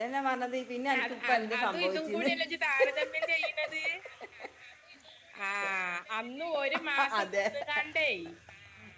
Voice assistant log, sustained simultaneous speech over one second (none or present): present